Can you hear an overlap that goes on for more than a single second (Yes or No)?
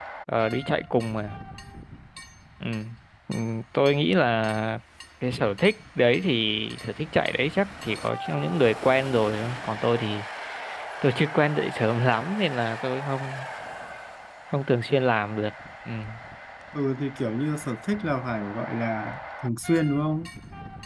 No